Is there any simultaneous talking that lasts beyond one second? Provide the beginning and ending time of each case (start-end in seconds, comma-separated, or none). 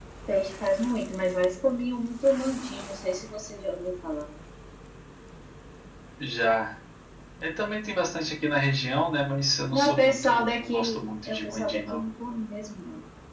9.7-12.0